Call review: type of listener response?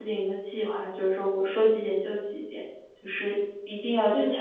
taking over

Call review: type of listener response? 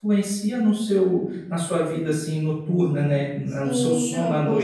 taking over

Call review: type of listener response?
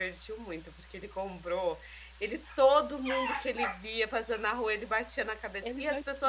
listening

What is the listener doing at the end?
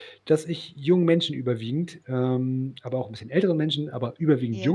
listening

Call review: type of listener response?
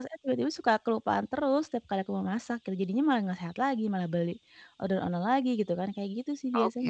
taking over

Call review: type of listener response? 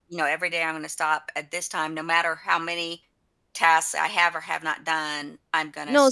taking over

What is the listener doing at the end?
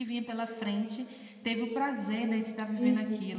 taking over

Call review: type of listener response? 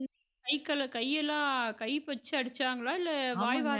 taking over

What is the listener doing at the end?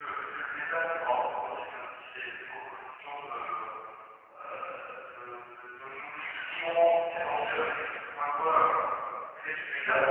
taking over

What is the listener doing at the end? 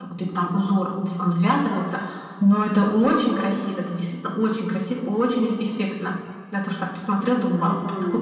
taking over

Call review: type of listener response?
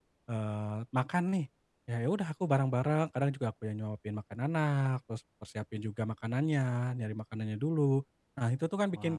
listening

